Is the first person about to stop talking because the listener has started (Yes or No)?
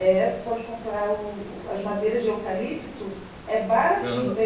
No